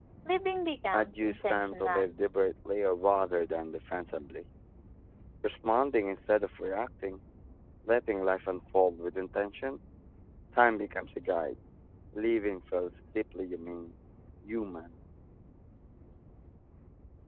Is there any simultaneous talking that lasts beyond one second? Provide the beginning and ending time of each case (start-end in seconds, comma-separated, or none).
0.9-2.1